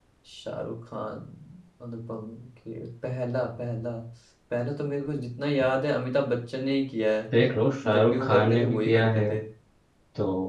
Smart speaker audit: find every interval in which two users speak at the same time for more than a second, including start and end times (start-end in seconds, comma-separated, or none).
8.0-9.2